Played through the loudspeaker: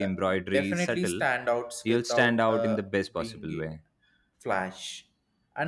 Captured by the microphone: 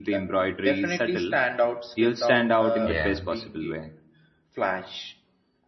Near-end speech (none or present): present